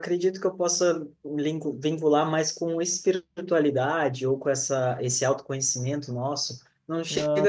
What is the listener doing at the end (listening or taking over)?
listening